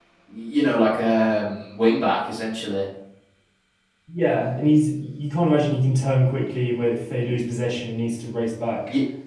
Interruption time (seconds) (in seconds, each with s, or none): none